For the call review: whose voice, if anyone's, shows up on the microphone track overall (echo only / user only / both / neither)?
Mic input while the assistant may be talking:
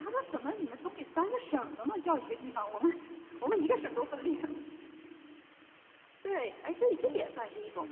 both